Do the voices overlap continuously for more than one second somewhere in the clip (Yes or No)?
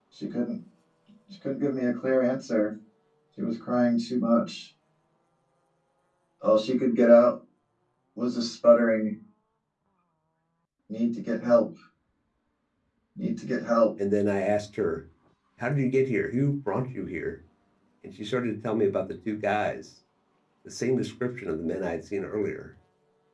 No